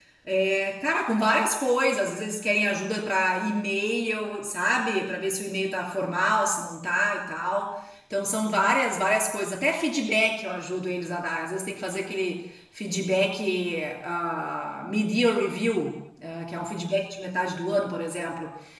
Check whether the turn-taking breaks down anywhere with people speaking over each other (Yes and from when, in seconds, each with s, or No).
No